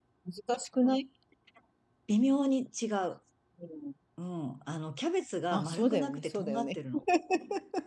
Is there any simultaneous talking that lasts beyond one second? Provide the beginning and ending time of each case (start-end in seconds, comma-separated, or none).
5.5-6.8